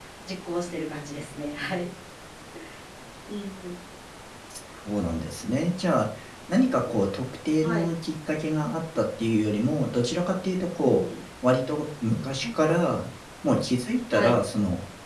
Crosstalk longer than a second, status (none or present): none